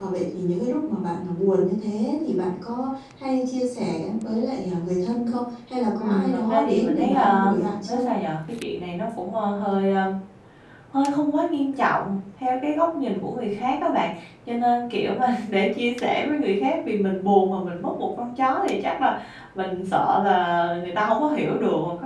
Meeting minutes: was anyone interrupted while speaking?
Yes, from 6.0 s

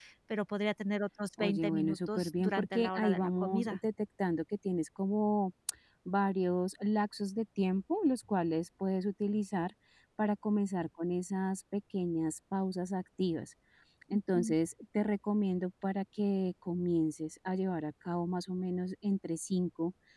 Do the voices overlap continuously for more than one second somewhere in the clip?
Yes, from 1.4 s

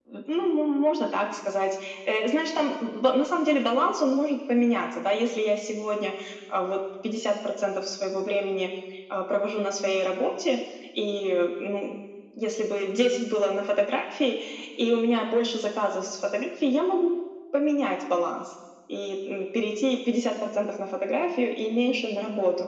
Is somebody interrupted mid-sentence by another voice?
No

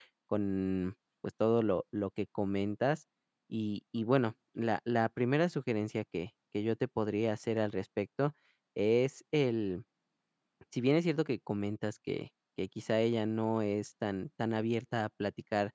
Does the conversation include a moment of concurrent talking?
No

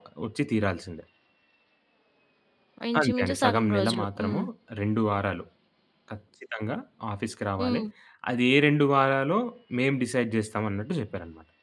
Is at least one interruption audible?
Yes, from 3.0 s

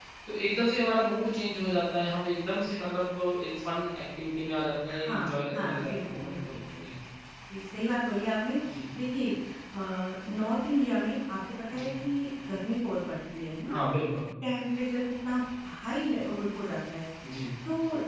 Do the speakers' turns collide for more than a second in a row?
Yes, from 4.9 s

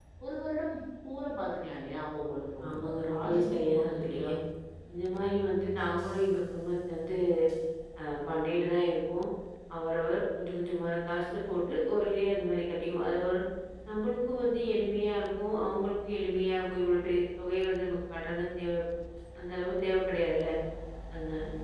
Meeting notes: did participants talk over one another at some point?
Yes, from 2.6 s

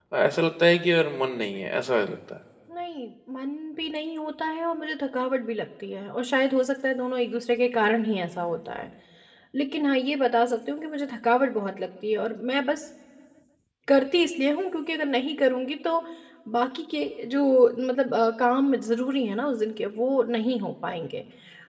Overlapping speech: No

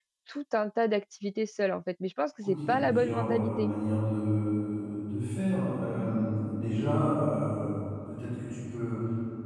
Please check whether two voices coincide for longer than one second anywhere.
Yes, from 2.4 s

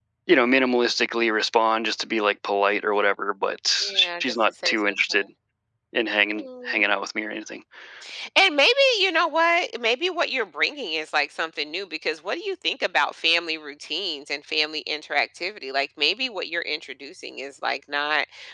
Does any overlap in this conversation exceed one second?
Yes, from 3.8 s

